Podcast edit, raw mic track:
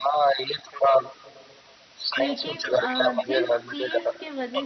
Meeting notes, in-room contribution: present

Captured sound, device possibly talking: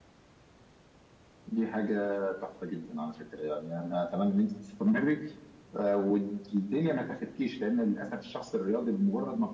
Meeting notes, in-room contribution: none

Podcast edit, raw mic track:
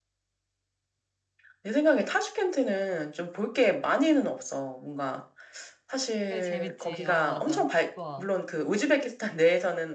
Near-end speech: present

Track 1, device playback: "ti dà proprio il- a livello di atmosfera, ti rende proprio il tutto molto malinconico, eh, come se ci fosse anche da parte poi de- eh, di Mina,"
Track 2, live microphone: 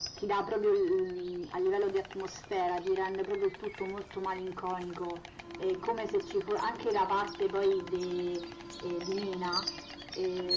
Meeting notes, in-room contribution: none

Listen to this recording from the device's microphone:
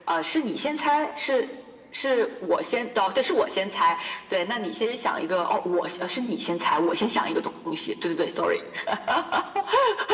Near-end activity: none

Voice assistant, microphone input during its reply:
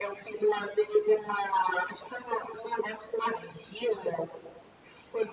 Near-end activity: none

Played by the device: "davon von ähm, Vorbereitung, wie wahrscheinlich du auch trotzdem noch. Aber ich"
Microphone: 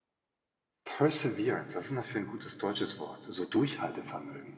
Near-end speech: present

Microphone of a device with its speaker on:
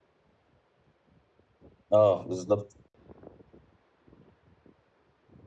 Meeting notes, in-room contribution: present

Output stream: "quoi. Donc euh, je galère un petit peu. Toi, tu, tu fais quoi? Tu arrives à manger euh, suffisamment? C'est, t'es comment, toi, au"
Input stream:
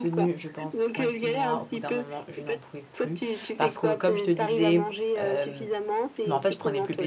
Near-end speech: present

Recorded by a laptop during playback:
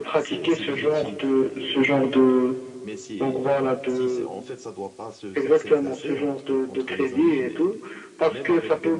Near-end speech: present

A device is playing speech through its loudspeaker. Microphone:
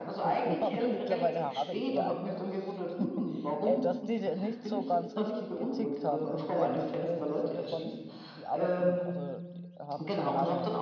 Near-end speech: present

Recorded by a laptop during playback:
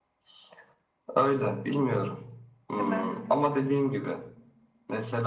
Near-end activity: present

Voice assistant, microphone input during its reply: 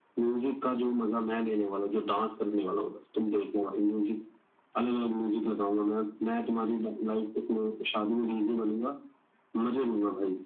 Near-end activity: none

